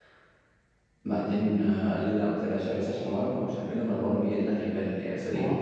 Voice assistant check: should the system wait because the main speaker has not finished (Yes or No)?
No